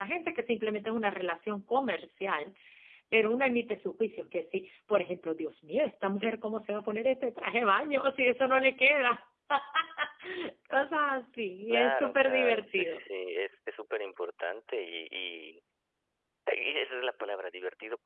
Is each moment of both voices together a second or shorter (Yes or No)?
No